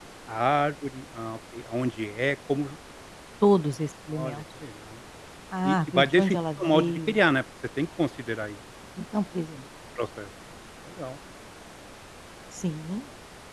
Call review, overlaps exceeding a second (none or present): present